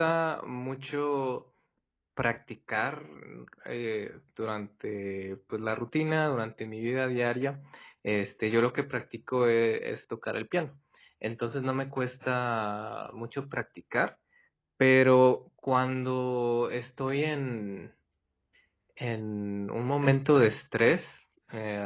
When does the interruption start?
none

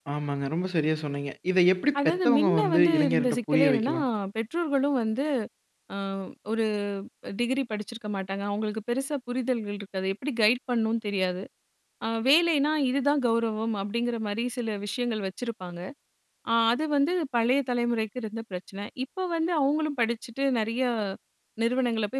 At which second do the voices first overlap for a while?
2.0 s

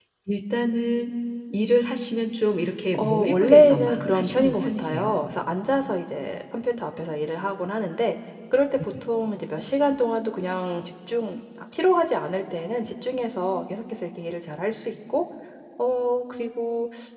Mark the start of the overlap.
2.9 s

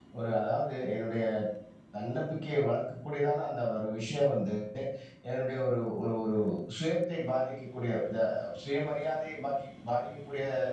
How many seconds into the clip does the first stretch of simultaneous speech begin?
none

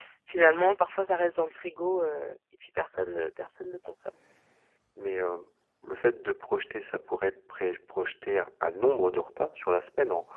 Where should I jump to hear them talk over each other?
none

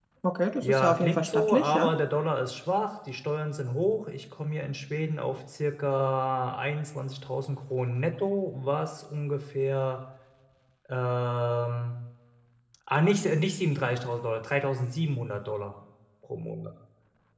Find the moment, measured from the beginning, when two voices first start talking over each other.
0.6 s

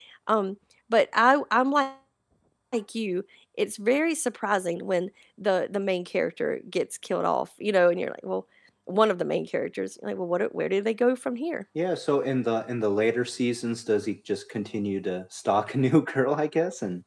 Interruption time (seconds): none

